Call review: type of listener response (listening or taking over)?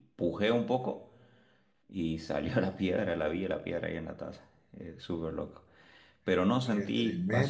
listening